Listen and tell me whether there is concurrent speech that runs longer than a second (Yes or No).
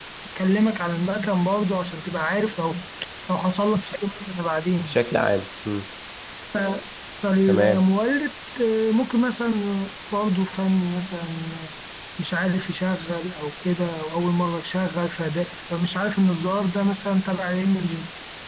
No